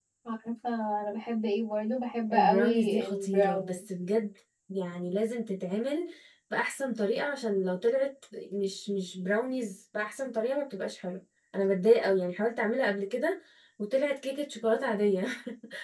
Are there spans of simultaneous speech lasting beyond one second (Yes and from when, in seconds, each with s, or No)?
Yes, from 2.3 s